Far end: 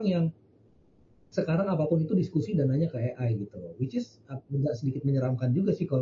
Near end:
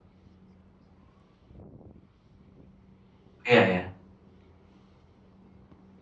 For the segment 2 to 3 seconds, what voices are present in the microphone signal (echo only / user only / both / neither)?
neither